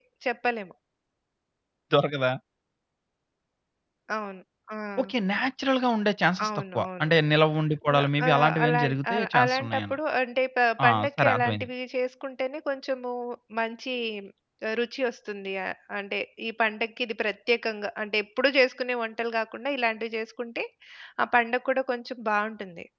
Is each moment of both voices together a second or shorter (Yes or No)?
No